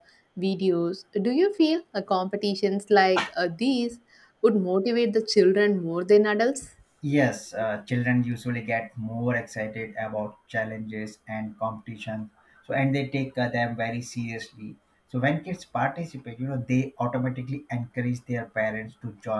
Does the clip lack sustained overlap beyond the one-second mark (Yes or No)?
Yes